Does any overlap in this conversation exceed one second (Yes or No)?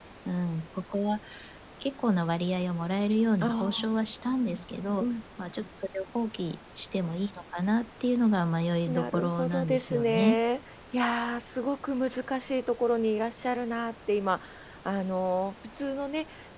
Yes